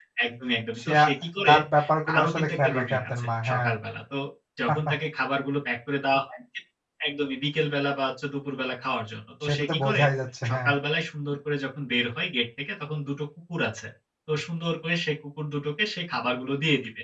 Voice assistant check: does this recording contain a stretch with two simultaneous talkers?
Yes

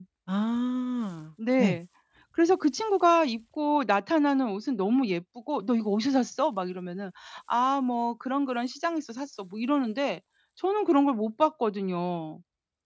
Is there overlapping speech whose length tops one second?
No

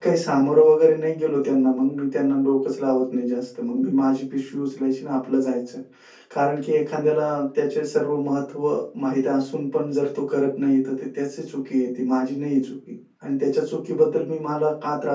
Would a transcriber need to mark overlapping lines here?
No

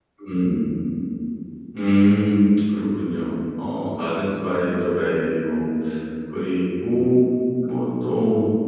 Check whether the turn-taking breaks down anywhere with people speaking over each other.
No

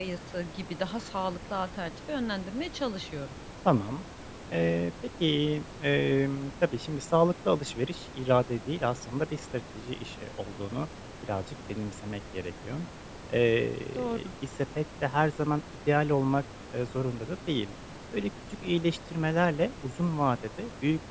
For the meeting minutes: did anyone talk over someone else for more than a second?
No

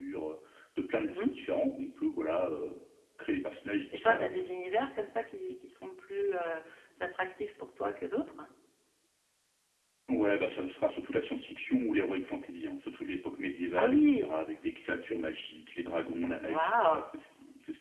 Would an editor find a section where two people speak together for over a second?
No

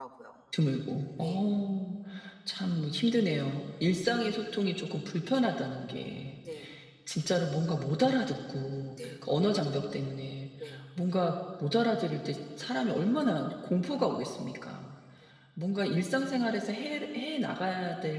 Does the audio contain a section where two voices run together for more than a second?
No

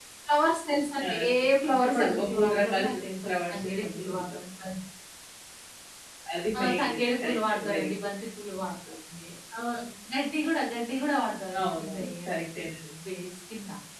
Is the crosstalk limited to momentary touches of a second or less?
No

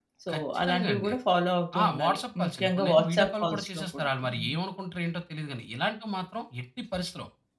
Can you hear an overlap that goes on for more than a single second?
Yes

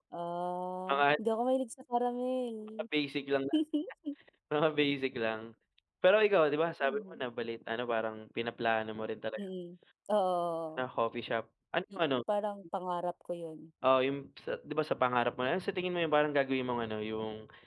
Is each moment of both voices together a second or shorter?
Yes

